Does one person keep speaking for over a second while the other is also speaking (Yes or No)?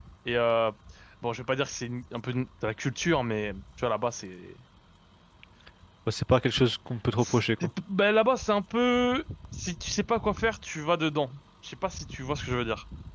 No